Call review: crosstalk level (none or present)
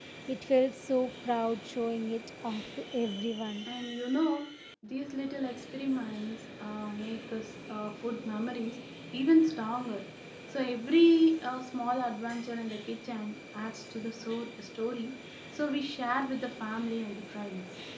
none